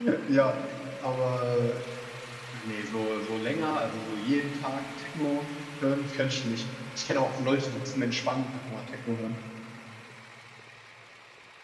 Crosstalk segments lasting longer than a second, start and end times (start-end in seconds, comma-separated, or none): none